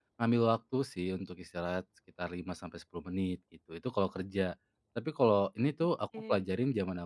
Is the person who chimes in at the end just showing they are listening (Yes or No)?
Yes